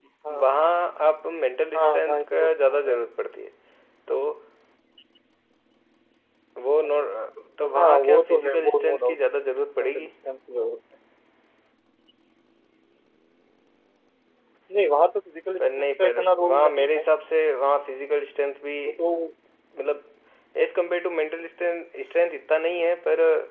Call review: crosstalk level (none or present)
present